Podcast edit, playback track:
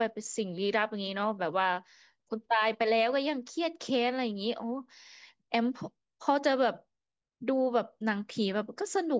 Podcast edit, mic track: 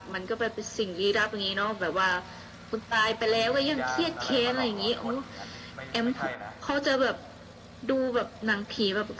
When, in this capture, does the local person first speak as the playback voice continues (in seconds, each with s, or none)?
3.4 s